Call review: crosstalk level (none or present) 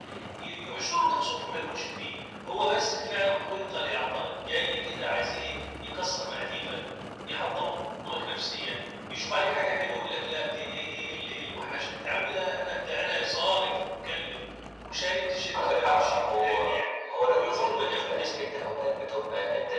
present